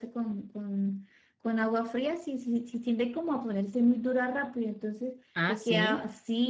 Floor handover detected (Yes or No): No